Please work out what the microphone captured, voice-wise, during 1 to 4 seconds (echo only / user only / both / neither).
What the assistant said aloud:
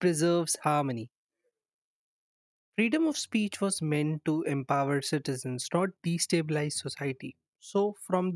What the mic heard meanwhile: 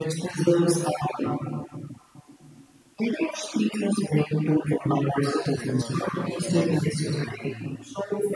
echo only